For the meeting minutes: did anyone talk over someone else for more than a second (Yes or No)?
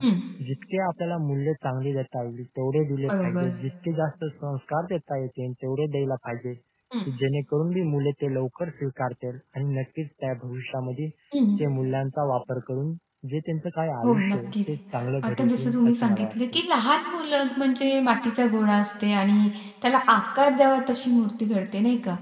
Yes